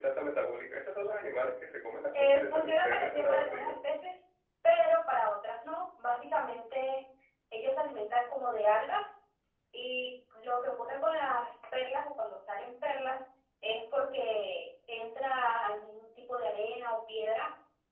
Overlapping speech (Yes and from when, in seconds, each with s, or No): Yes, from 2.1 s